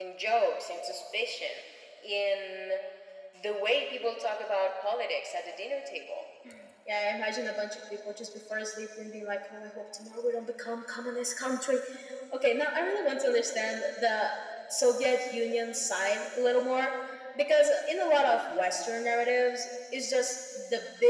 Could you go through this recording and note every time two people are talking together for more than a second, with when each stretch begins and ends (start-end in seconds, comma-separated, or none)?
none